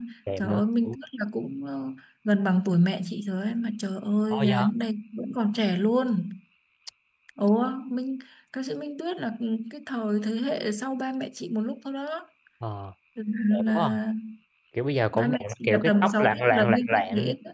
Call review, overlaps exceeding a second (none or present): present